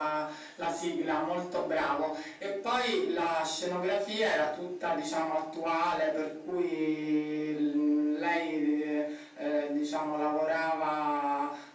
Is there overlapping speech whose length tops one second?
No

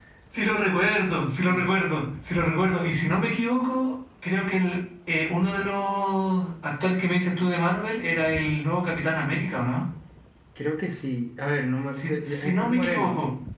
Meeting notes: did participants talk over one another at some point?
Yes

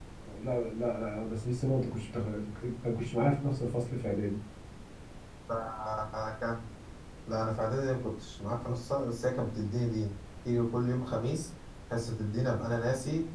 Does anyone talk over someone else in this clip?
No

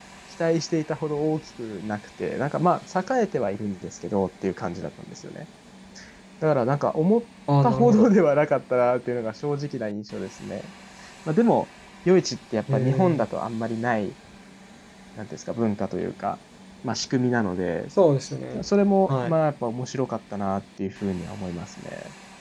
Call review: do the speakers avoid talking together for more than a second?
Yes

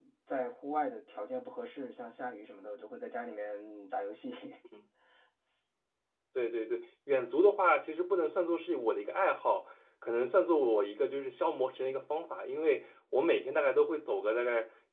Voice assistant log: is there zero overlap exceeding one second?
Yes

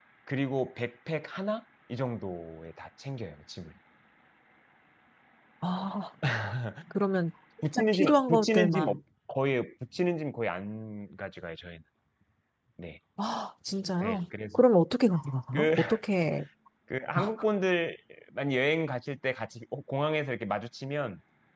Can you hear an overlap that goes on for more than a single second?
Yes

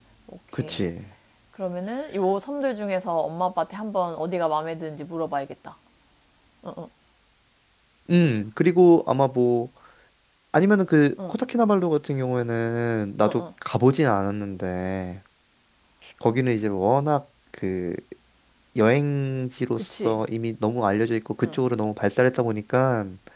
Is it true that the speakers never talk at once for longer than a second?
Yes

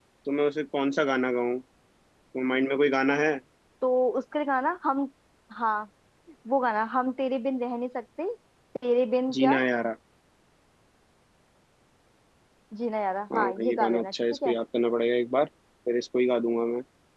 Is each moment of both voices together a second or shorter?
No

